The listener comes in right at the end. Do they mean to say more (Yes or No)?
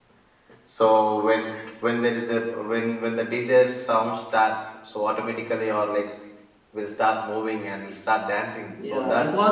Yes